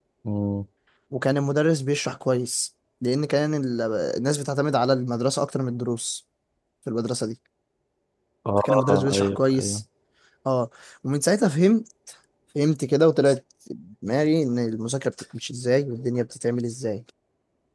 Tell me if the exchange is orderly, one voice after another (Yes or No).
No